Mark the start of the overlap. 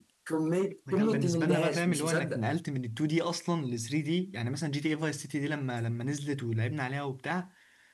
0.9 s

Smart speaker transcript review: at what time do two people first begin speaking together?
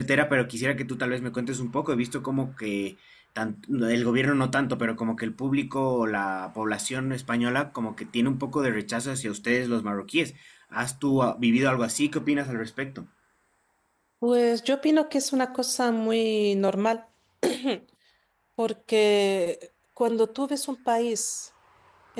none

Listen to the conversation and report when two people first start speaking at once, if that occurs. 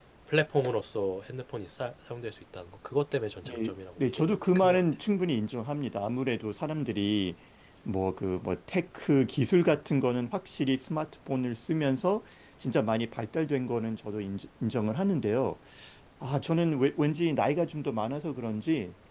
3.5 s

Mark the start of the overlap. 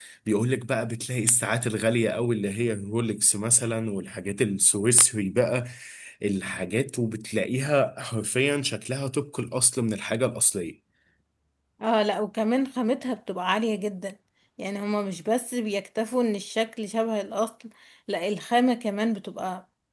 none

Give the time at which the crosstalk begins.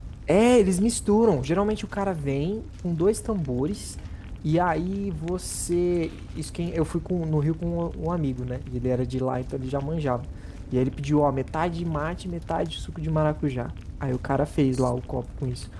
none

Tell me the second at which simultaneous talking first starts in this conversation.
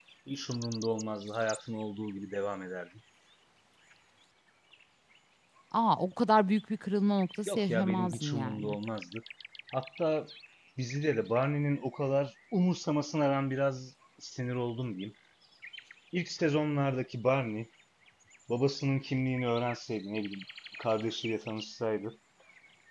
7.5 s

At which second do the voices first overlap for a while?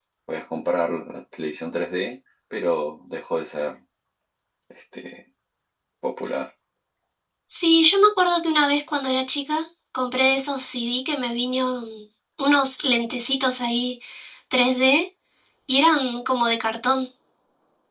none

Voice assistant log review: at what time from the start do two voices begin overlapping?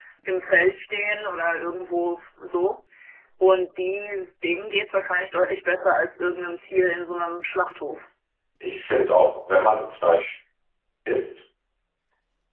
none

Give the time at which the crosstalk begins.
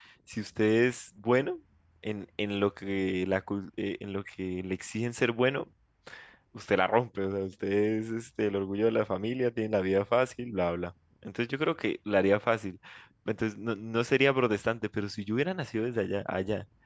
none

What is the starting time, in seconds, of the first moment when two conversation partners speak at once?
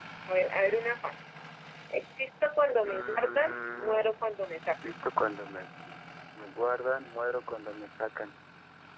2.8 s

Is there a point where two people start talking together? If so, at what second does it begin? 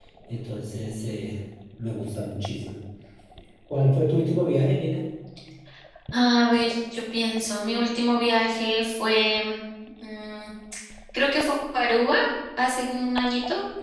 none

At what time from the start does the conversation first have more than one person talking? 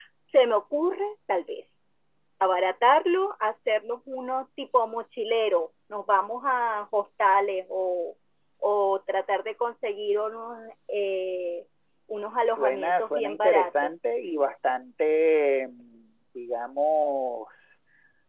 12.3 s

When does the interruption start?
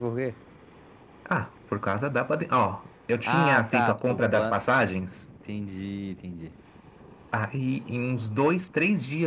3.2 s

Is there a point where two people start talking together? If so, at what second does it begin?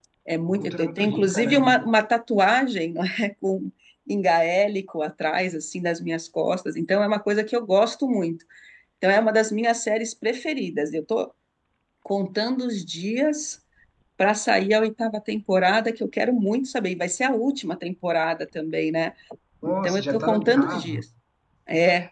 0.5 s

